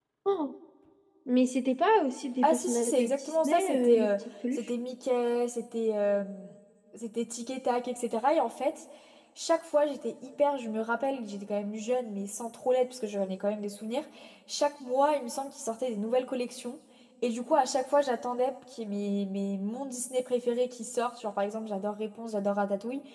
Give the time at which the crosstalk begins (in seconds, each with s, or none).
2.4 s